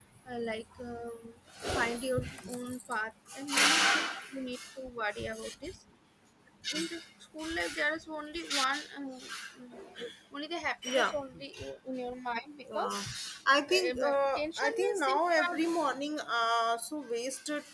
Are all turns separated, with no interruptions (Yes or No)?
No